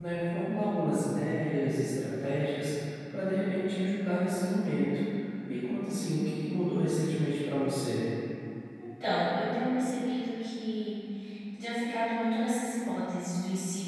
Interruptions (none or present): none